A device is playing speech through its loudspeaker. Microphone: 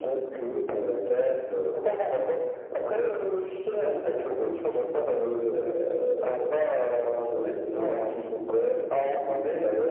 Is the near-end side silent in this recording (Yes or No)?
Yes